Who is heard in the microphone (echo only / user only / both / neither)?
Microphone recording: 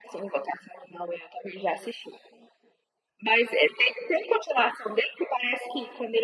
echo only